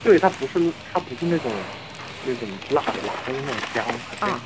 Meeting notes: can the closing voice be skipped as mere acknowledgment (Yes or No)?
No